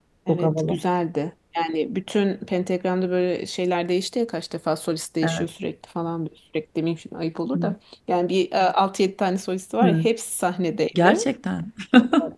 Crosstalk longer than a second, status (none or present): none